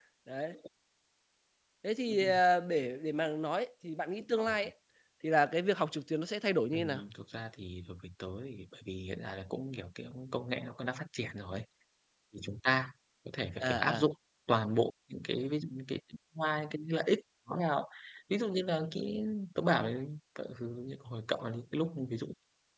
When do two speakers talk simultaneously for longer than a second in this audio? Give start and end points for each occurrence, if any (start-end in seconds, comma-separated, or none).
none